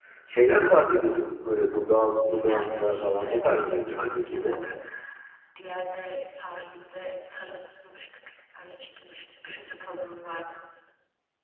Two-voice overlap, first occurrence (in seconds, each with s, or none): 2.4 s